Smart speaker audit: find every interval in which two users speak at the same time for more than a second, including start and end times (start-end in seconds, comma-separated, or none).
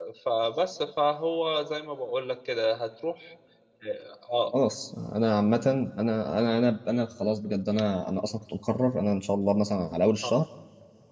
none